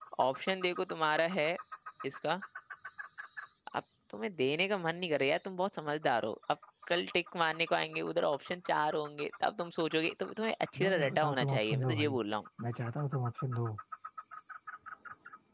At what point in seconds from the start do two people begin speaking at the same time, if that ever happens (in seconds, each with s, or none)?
10.8 s